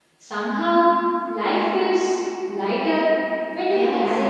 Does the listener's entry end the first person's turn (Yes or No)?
Yes